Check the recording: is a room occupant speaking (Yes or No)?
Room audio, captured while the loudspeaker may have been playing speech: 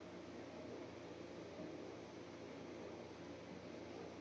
No